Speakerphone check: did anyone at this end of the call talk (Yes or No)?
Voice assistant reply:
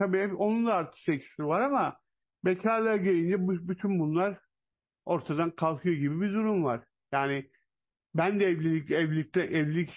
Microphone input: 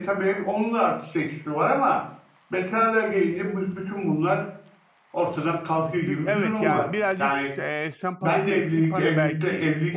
Yes